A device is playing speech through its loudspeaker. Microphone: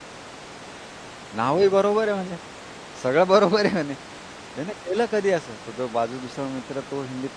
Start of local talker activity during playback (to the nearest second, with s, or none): 1 s